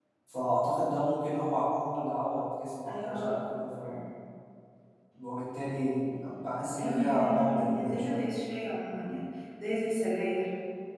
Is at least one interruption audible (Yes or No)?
Yes